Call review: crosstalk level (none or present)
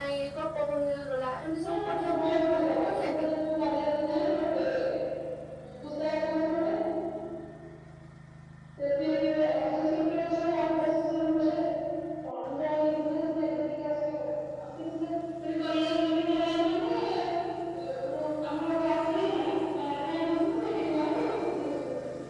present